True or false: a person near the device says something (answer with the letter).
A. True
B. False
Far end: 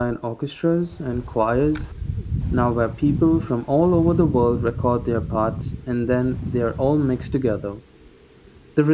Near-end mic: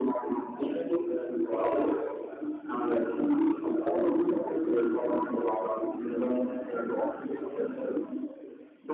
B